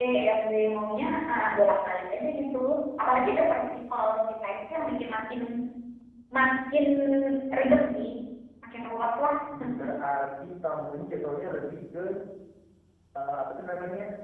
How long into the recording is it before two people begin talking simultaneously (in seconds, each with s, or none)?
none